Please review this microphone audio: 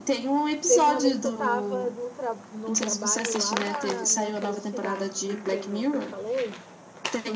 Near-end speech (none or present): present